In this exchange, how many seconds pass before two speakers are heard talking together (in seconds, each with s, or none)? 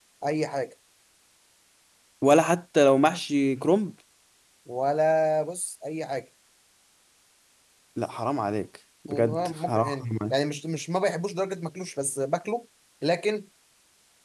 9.1 s